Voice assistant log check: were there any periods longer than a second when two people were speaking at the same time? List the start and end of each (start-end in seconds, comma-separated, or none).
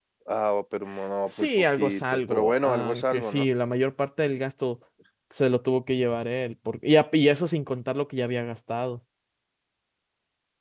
1.3-3.5